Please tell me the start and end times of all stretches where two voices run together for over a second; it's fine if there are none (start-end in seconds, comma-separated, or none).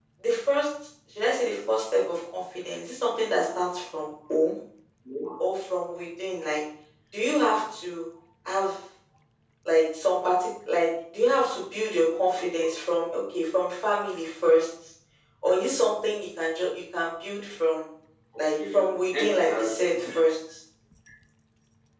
18.4-19.7